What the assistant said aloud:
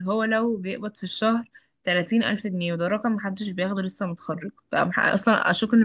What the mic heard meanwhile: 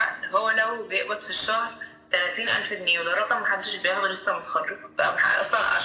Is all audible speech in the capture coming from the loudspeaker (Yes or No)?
Yes